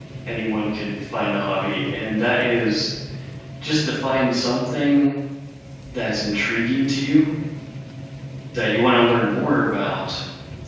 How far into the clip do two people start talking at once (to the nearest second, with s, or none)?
none